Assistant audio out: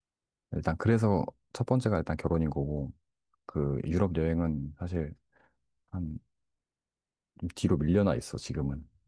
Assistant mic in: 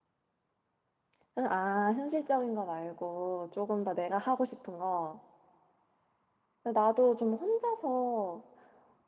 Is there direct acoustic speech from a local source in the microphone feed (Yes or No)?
Yes